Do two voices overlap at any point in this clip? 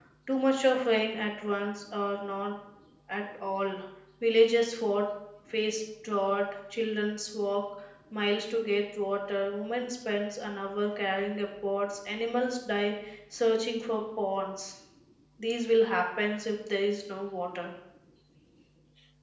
No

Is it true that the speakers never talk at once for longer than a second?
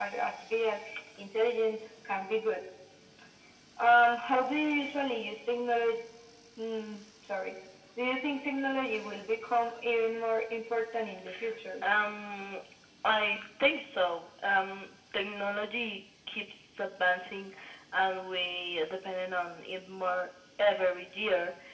Yes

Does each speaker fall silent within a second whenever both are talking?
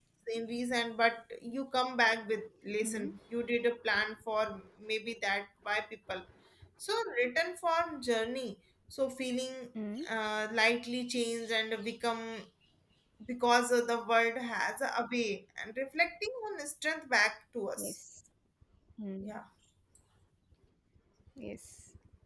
Yes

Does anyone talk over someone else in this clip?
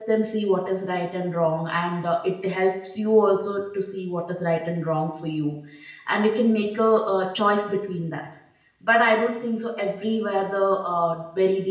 No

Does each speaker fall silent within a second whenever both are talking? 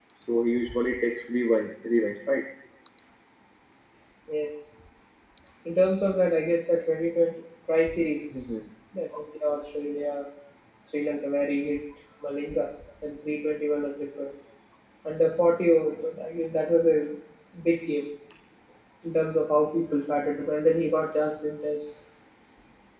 Yes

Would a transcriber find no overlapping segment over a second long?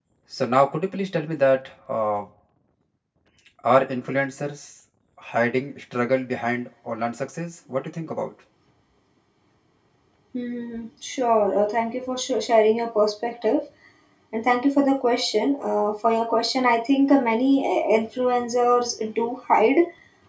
Yes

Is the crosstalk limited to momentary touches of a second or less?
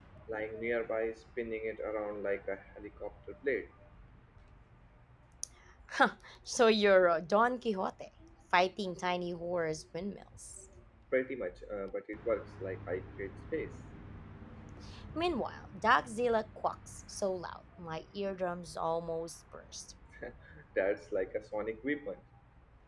Yes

